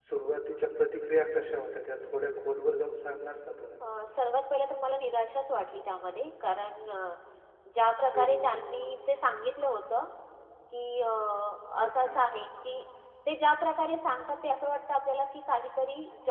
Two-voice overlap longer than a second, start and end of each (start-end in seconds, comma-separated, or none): none